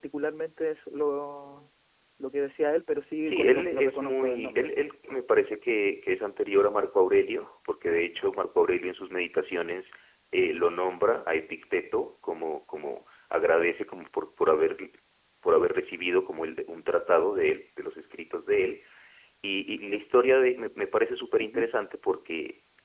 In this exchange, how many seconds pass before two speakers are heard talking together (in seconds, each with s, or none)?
3.2 s